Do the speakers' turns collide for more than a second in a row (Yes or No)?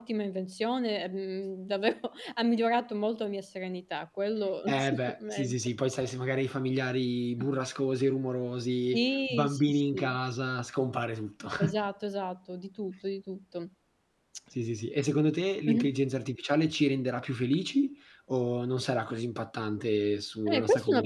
Yes